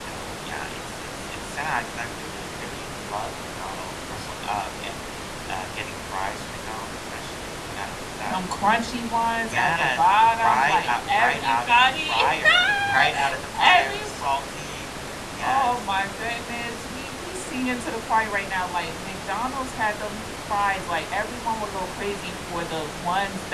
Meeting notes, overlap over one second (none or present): present